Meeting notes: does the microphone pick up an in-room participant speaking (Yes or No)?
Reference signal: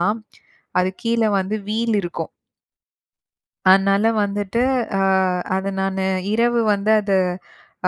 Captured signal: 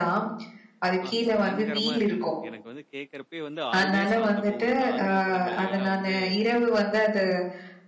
Yes